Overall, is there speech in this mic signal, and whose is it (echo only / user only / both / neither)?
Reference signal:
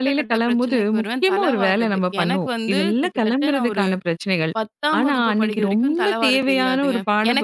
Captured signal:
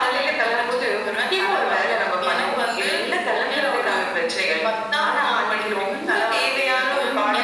both